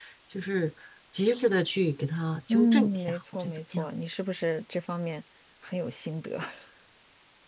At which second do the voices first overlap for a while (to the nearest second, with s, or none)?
2 s